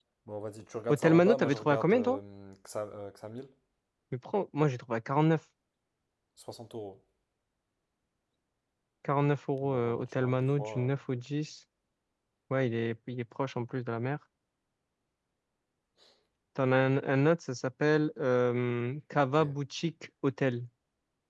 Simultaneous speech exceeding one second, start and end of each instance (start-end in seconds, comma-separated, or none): 0.9-2.2, 9.6-10.9